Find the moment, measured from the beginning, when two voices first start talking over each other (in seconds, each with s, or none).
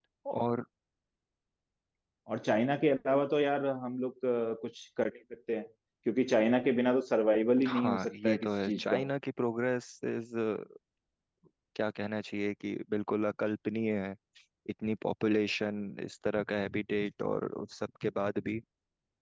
7.6 s